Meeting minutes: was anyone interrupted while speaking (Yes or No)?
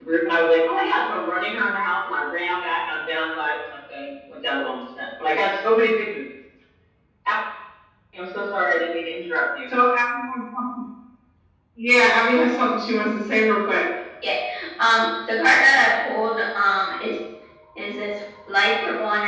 No